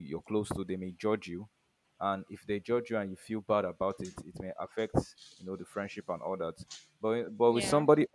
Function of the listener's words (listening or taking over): listening